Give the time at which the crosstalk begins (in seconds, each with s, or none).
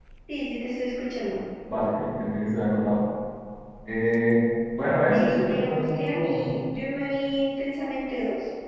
5.1 s